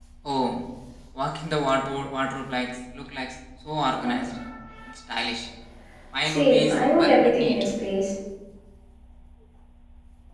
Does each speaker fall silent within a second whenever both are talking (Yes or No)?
No